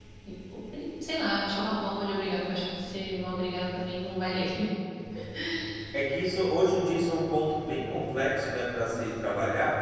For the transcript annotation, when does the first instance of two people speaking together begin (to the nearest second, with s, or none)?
none